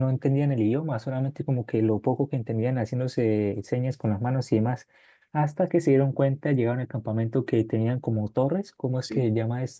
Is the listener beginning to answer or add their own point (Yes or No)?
No